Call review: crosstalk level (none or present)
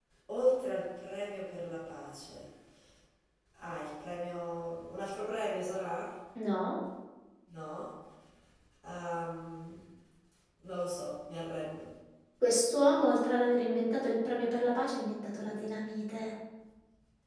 none